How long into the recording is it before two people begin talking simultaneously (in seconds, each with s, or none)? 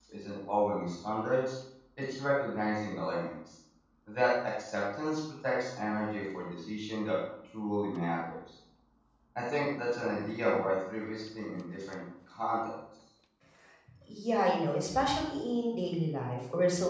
none